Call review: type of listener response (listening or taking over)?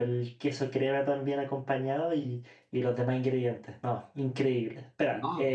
listening